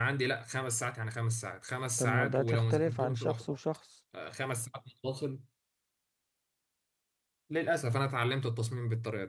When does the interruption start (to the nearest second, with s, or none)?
2 s